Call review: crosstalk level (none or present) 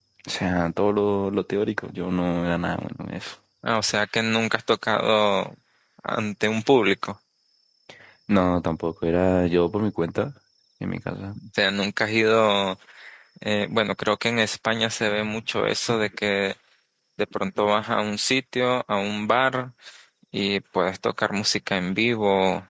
none